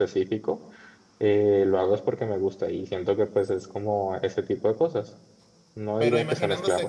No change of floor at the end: No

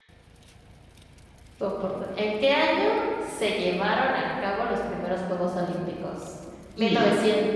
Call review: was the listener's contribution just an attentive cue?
Yes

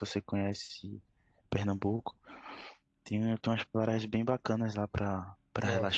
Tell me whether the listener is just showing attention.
No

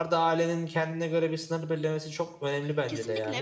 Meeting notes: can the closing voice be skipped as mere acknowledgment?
No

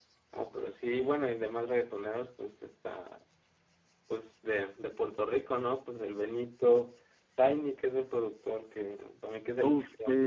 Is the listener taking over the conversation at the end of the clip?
Yes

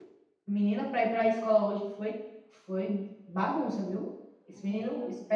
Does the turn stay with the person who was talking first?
No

